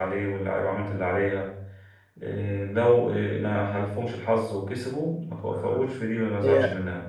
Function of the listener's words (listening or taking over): taking over